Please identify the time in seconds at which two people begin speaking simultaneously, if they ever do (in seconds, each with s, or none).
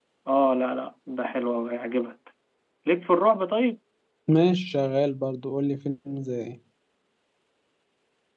none